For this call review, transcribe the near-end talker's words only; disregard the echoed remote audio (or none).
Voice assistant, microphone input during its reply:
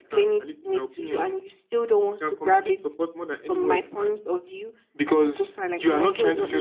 none